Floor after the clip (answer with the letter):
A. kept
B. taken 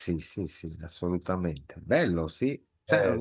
A